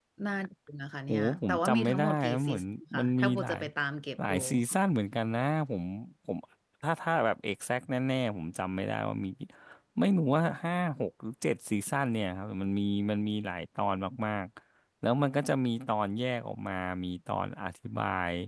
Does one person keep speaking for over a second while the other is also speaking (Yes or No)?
Yes